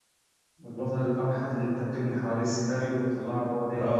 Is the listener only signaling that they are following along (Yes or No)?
No